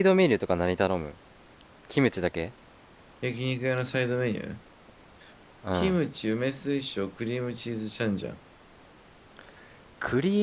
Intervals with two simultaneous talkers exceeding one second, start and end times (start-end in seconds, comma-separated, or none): none